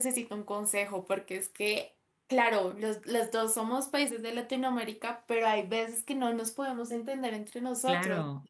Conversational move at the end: taking over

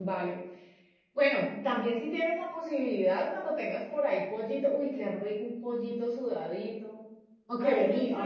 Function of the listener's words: taking over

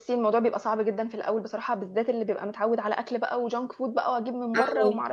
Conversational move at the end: listening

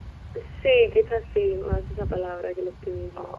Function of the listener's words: taking over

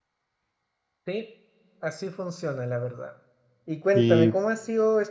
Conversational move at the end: listening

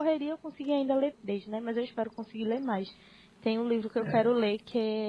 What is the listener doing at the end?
listening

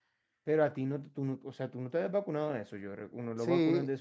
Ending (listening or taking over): taking over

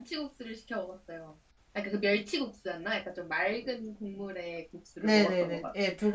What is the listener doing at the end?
taking over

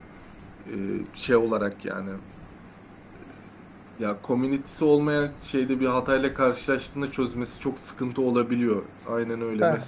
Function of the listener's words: listening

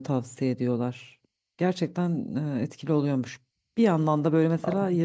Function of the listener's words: listening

